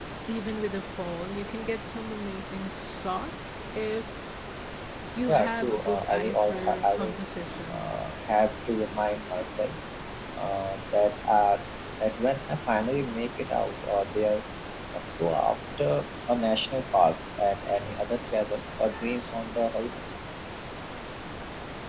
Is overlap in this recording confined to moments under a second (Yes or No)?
No